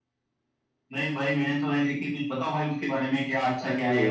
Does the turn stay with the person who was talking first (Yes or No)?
Yes